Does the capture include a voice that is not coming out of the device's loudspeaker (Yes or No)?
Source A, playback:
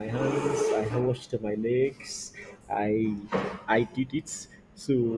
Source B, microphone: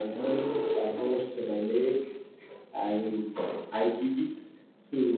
No